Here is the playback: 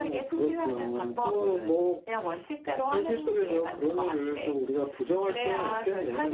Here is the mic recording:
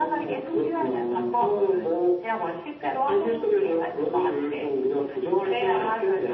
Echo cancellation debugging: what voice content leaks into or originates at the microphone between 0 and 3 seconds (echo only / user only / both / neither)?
echo only